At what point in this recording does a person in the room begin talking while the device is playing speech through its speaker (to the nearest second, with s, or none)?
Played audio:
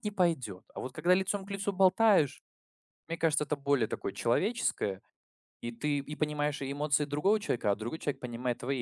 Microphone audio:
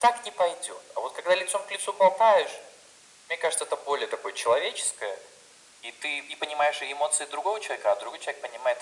none